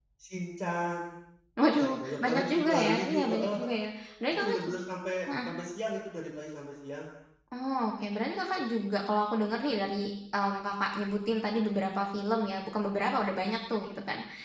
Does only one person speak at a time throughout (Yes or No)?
No